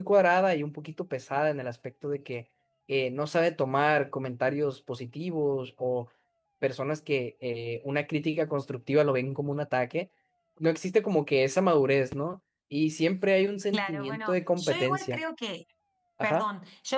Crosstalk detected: Yes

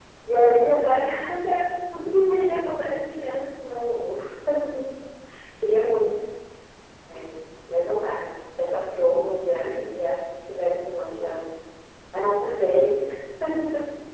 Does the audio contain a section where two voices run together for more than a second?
No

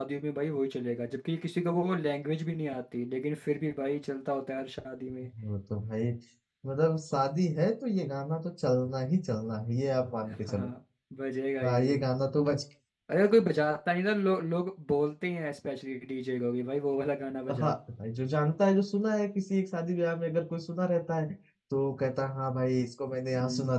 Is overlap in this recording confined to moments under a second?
Yes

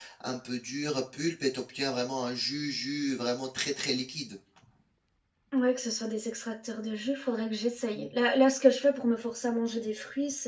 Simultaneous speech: No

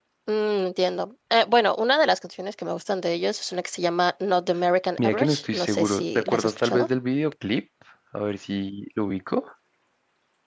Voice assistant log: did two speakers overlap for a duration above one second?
Yes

